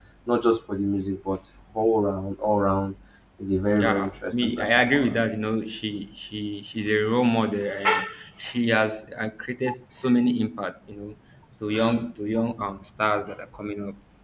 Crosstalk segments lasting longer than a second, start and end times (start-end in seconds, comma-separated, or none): 3.8-5.2